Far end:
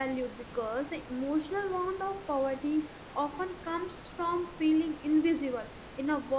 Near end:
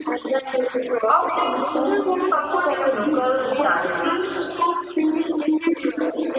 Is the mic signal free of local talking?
No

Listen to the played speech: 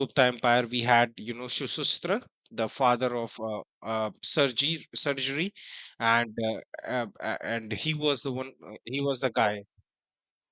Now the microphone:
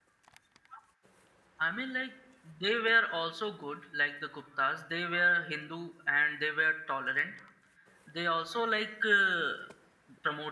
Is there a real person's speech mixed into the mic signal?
Yes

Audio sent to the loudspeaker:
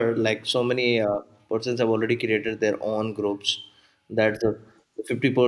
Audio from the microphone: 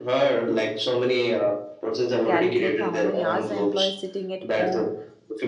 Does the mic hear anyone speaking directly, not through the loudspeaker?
Yes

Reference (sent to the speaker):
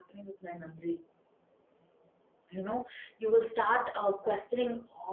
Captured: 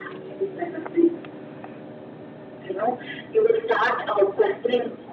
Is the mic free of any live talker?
Yes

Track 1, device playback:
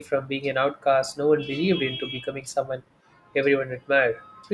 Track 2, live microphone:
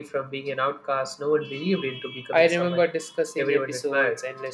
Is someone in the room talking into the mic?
Yes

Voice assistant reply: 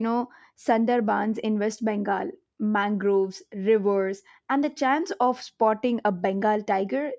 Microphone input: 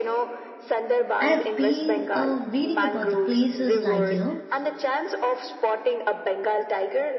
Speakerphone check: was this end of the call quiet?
No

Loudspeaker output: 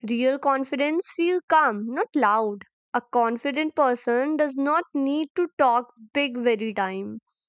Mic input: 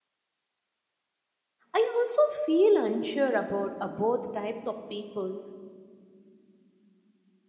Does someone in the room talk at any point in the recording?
Yes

